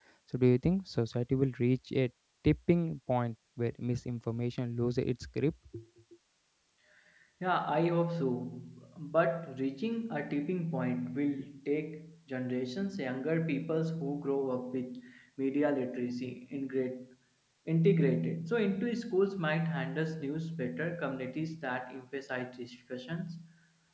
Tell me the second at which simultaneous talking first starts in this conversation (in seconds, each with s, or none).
none